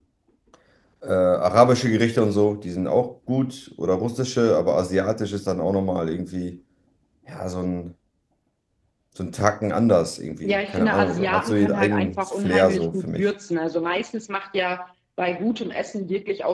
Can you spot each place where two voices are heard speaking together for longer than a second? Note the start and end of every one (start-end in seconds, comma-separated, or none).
10.4-13.3